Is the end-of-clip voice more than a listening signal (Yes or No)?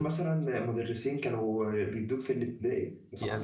Yes